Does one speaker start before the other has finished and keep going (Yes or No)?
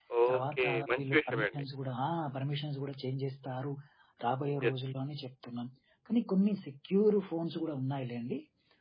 Yes